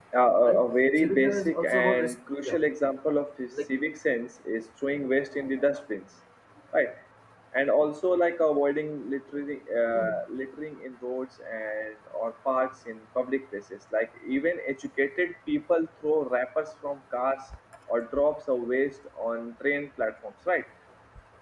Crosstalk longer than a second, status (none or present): present